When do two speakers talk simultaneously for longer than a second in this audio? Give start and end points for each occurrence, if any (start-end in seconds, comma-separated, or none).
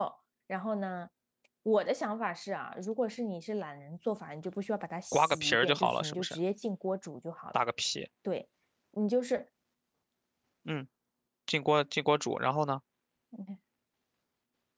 5.1-6.3